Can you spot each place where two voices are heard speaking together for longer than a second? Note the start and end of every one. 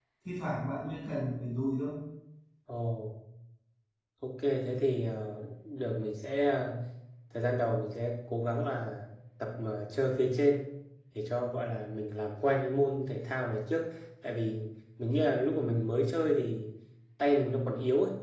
none

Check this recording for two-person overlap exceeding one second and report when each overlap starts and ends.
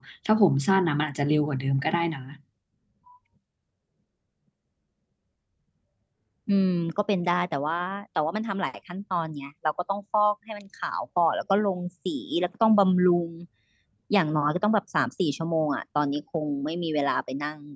none

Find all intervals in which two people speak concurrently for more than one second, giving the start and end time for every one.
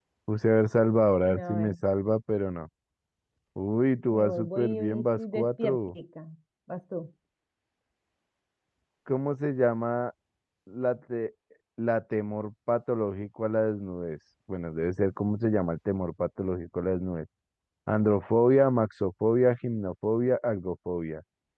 4.1-6.0

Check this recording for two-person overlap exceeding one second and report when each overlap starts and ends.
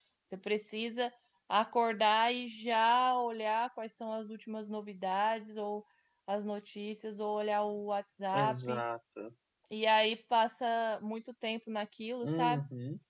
none

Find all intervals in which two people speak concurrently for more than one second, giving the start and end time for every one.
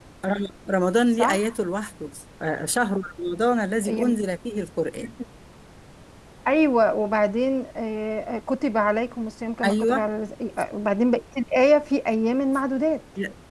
none

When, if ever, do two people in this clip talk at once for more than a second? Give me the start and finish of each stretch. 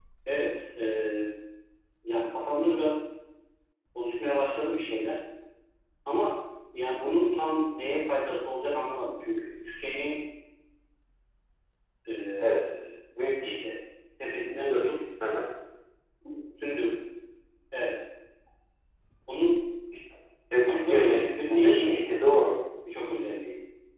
20.7-22.0

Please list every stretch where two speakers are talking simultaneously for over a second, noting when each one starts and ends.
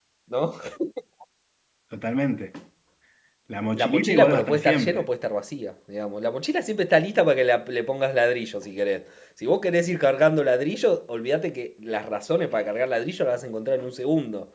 3.7-5.0

